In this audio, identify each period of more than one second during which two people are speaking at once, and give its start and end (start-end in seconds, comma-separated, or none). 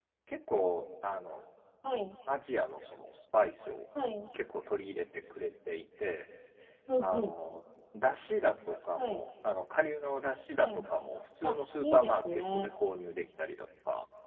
11.4-12.7